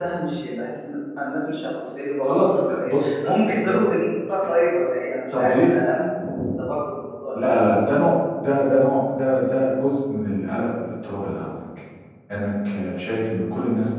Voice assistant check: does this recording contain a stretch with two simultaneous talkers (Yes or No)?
Yes